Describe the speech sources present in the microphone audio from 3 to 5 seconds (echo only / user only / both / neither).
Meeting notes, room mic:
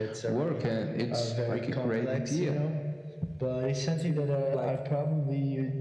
both